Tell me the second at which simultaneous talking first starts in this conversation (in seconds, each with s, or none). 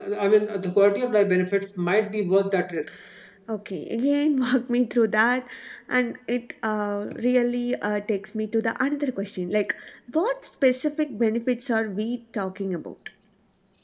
none